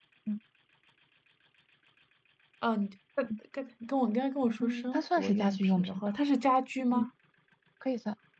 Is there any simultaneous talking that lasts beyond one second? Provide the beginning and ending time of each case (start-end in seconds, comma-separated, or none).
4.6-6.1